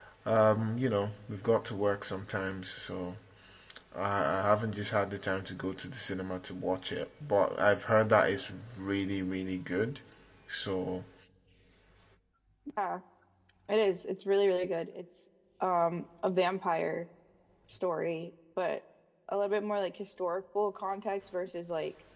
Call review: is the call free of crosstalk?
Yes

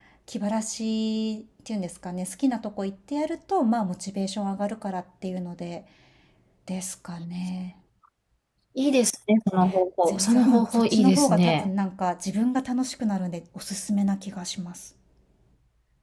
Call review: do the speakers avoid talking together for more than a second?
No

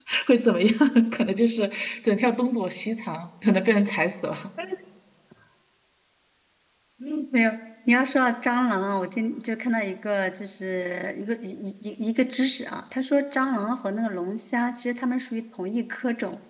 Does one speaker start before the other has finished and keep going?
No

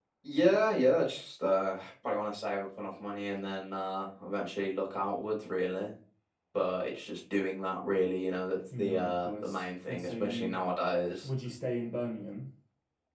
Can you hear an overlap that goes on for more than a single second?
Yes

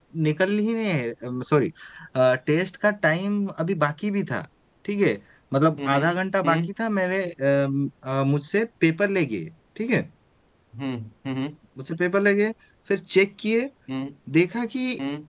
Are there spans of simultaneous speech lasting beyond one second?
No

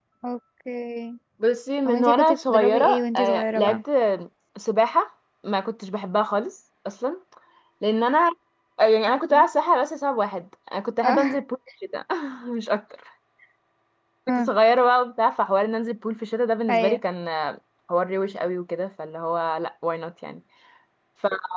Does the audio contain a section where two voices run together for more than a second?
Yes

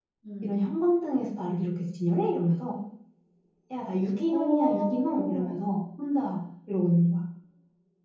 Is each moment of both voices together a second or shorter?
No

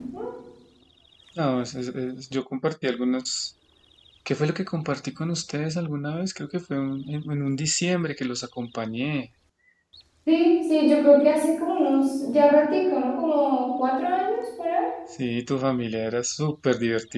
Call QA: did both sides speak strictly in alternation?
Yes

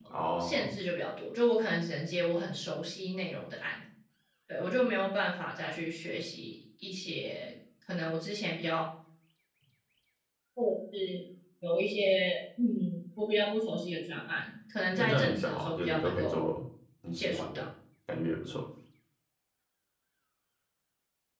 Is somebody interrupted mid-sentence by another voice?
Yes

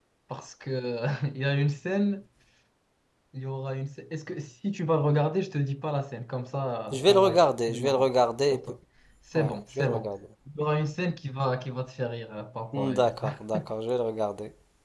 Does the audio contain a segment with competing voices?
Yes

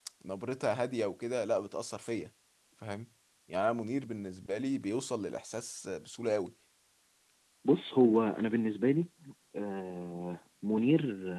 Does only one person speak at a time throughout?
Yes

